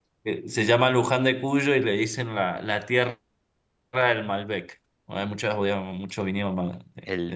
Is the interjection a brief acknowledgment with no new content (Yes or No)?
No